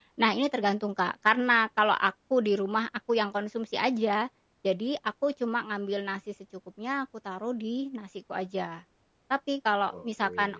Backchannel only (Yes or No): Yes